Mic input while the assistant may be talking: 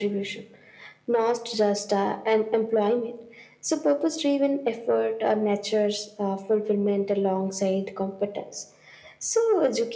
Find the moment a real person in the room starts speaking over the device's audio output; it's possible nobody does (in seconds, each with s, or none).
none